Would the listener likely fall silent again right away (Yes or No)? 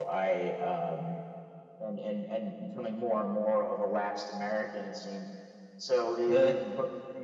Yes